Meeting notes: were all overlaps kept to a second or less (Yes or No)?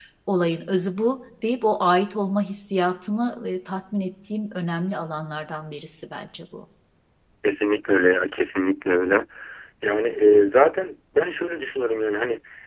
Yes